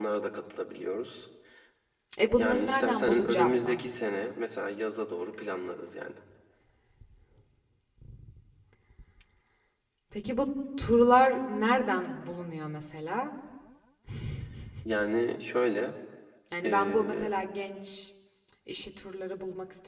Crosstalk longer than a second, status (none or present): present